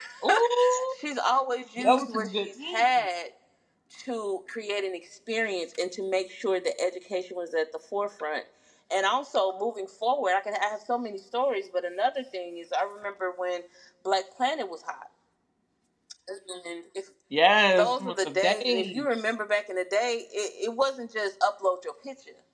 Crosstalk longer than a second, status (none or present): present